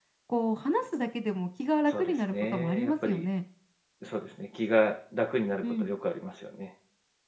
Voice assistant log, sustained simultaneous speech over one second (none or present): present